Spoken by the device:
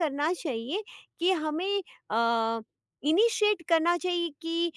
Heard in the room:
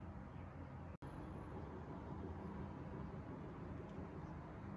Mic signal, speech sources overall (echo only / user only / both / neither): neither